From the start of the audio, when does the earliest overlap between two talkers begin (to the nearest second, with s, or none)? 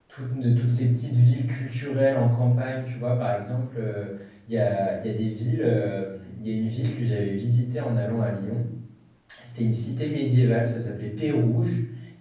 none